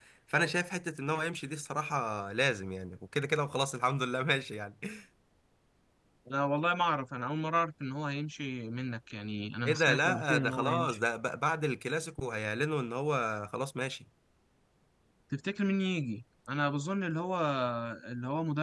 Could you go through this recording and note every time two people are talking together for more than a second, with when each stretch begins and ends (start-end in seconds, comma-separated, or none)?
9.7-11.0